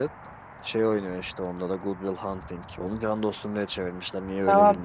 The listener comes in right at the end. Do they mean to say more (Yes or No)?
Yes